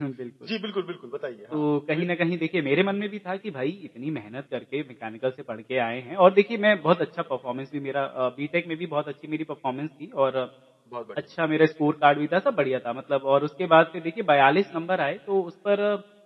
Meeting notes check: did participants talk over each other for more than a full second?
No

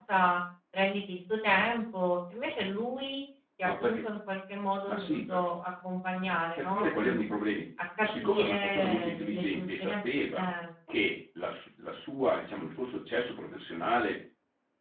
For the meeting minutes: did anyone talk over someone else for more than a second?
Yes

